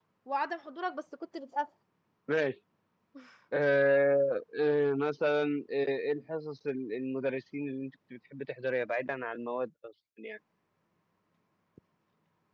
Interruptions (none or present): none